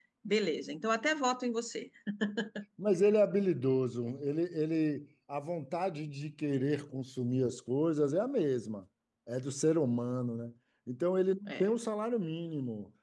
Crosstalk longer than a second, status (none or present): none